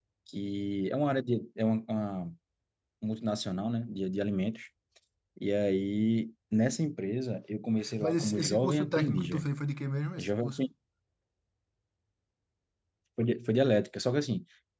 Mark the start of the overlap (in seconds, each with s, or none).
8.0 s